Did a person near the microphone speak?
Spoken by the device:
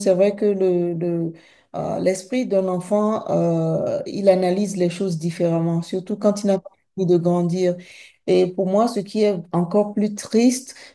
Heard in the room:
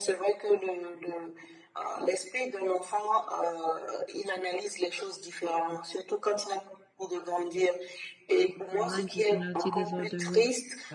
Yes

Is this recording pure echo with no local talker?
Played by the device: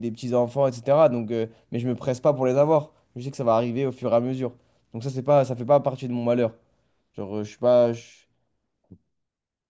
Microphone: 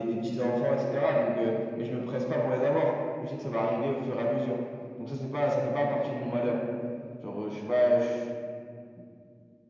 Yes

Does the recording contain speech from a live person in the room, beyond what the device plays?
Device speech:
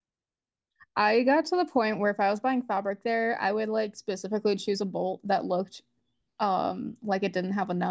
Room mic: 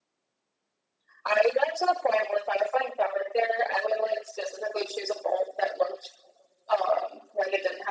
No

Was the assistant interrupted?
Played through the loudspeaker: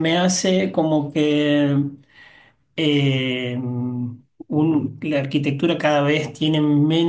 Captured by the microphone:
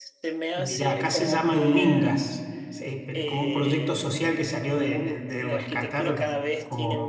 Yes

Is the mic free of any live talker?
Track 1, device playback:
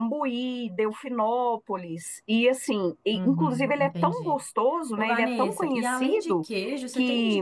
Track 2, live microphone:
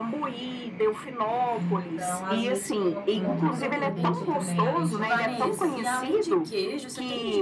No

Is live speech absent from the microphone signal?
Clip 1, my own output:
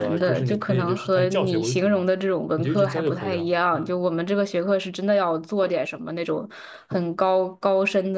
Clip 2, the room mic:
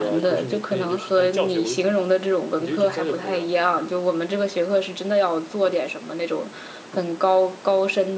Yes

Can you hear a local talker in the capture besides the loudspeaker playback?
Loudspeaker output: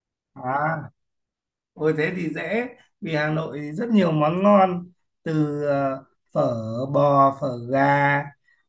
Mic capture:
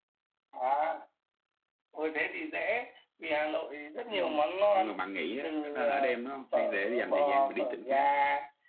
Yes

